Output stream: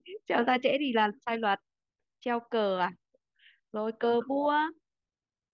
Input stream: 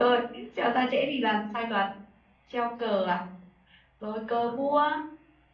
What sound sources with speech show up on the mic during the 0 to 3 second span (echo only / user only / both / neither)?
echo only